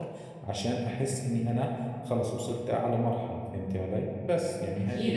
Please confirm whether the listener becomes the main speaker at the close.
Yes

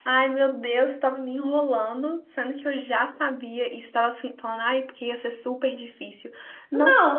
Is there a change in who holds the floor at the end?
Yes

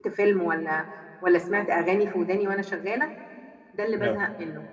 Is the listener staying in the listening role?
Yes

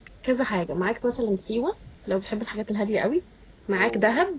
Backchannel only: Yes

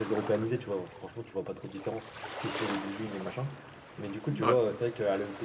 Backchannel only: Yes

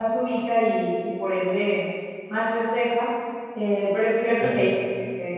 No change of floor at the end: Yes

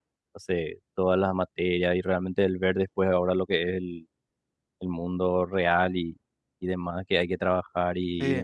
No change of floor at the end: Yes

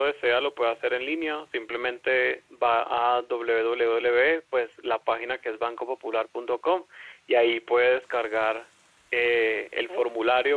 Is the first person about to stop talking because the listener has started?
No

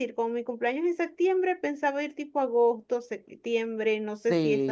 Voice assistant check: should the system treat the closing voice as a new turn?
Yes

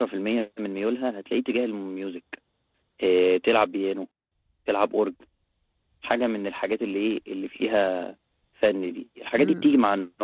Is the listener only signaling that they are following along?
Yes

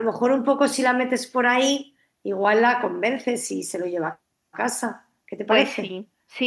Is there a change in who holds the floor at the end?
Yes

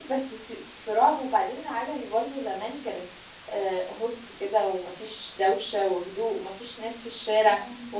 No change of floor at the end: Yes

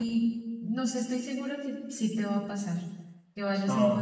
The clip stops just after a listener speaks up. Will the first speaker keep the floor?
No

